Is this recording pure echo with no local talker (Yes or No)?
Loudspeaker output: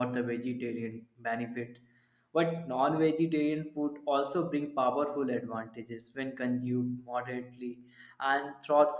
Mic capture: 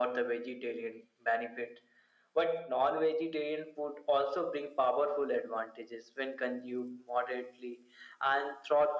Yes